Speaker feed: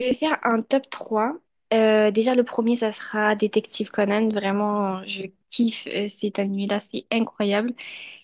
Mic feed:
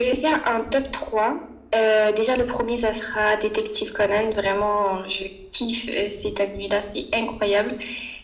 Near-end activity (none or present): none